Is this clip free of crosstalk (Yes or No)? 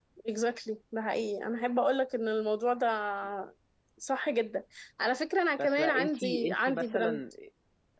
No